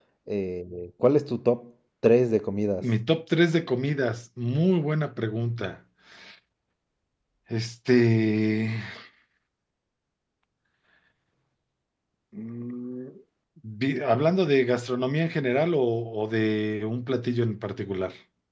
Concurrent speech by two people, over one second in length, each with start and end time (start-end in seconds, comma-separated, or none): none